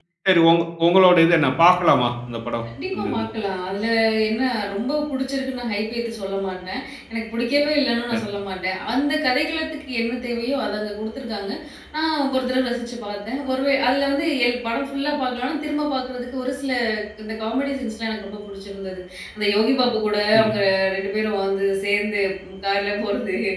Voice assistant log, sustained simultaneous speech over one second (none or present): none